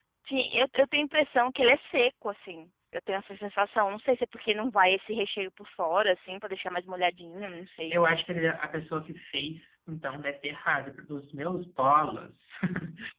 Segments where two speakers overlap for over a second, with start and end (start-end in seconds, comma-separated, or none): none